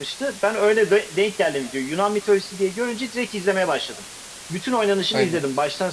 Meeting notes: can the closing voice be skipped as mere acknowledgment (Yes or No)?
Yes